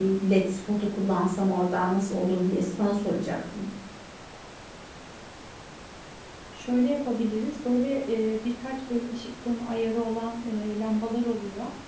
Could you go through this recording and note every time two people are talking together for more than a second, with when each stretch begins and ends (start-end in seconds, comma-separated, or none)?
none